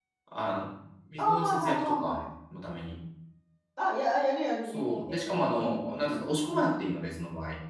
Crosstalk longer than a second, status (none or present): present